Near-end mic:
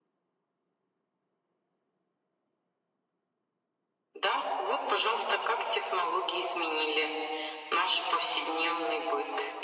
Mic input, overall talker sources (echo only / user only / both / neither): echo only